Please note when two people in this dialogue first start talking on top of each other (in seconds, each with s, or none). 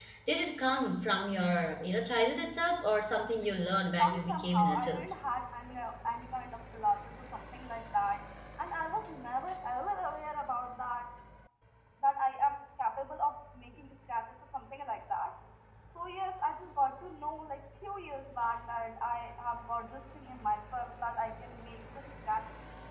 3.4 s